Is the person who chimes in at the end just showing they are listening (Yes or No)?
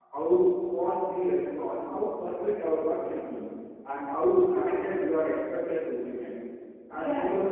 No